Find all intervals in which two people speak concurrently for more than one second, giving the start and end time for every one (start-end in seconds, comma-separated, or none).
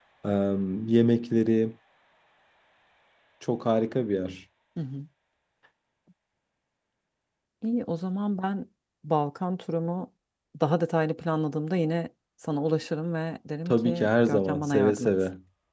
13.7-15.1